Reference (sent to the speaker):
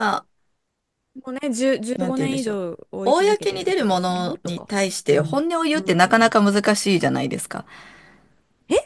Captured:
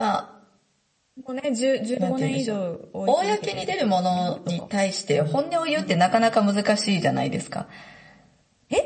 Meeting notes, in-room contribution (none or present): none